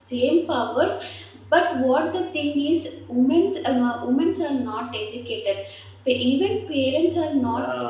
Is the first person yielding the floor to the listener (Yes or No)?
No